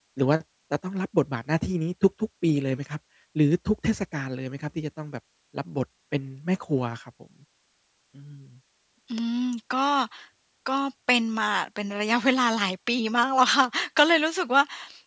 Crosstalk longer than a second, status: none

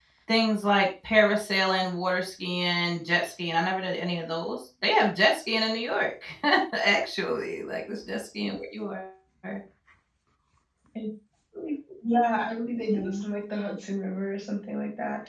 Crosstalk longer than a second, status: none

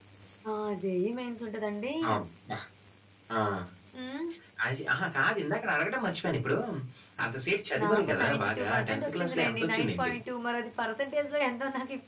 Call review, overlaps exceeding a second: present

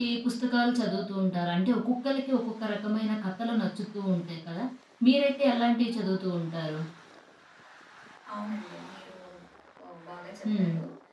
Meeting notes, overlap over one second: none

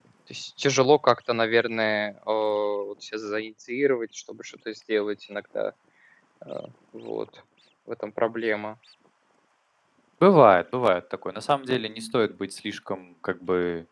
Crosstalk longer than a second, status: none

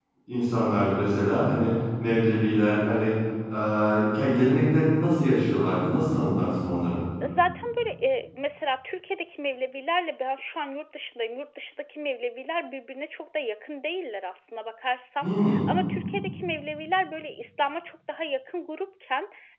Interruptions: none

